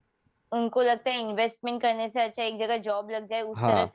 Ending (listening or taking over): listening